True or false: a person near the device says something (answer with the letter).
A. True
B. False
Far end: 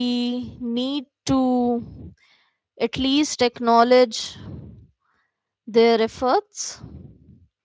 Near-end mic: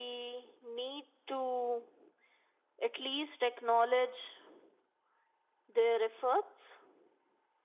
B